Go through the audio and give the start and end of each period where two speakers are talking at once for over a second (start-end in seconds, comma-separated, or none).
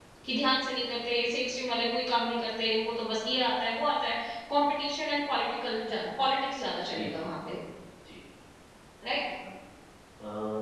none